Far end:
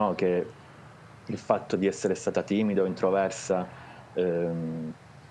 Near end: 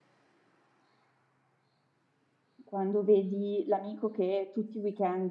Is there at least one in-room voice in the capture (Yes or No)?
Yes